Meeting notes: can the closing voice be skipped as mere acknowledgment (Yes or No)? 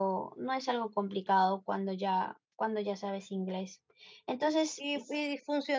No